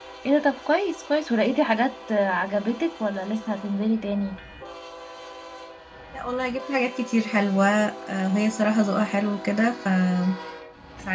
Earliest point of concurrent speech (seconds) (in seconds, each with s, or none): none